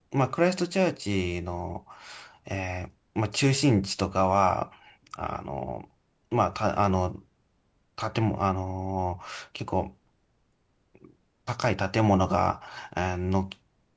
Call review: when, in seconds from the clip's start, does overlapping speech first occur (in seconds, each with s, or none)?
none